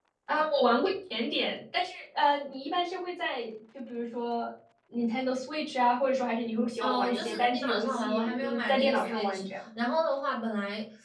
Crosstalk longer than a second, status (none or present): present